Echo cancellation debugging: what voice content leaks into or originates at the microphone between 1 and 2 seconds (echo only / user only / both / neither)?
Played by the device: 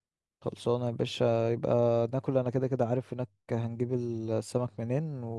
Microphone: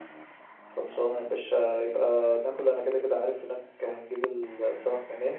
echo only